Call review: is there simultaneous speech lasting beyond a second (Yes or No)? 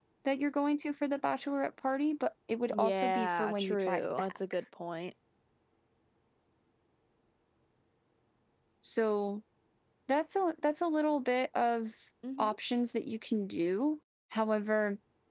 Yes